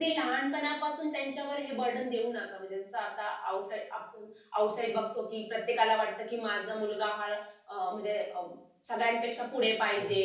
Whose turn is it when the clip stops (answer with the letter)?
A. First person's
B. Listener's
B